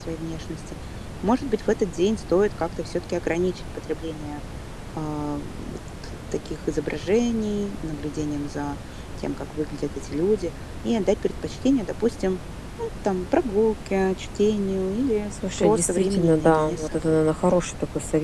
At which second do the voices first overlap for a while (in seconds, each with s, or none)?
15.6 s